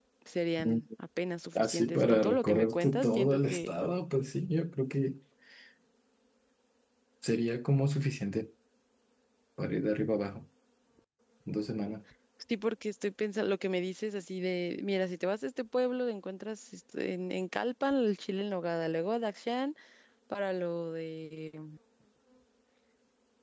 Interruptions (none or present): present